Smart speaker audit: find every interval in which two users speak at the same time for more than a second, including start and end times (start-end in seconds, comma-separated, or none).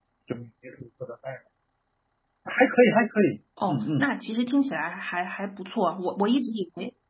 none